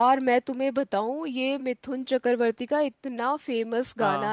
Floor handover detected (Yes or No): No